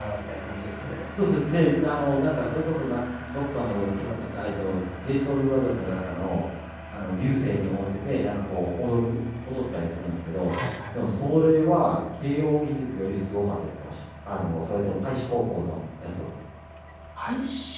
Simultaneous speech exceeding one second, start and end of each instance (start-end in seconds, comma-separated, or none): none